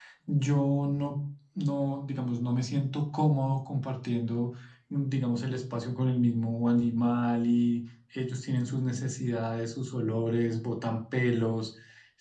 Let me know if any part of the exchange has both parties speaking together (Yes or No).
No